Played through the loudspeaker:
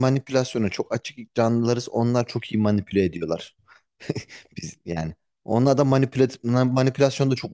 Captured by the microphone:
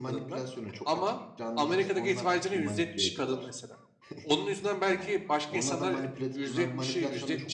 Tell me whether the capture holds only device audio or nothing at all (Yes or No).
No